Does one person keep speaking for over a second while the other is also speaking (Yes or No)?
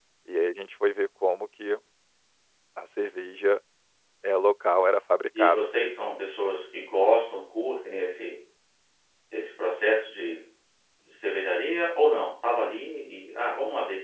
No